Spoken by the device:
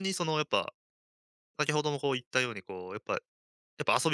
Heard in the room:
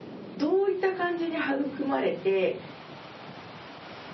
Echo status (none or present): none